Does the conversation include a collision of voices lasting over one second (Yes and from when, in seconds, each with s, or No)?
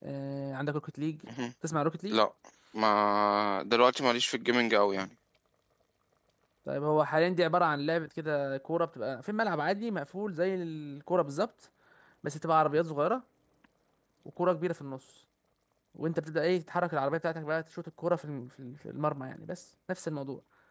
No